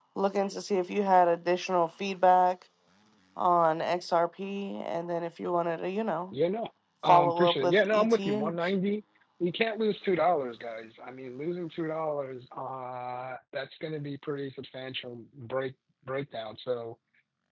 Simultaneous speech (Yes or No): Yes